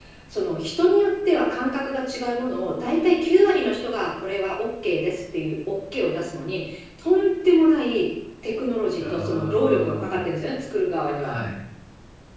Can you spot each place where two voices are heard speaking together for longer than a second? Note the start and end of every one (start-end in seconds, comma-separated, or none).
9.0-10.3